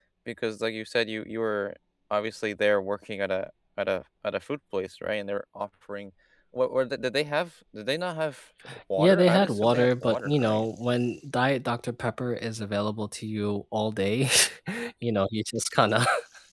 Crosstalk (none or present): present